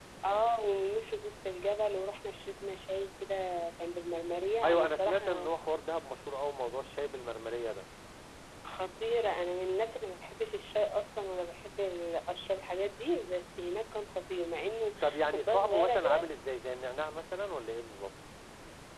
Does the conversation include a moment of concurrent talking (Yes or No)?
Yes